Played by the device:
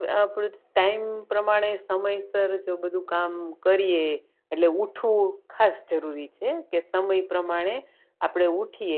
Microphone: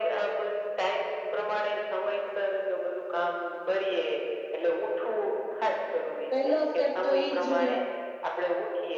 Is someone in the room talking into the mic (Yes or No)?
Yes